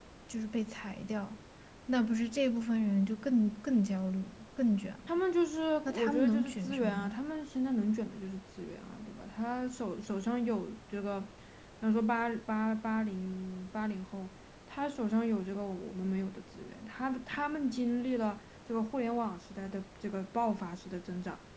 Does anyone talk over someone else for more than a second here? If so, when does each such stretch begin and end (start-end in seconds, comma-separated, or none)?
5.8-7.2